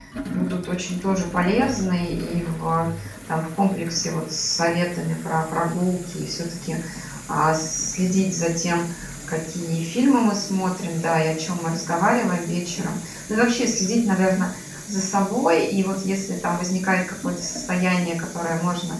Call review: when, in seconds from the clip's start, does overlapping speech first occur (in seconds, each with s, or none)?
none